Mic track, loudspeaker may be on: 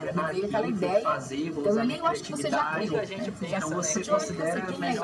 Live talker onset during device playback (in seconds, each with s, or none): 2.7 s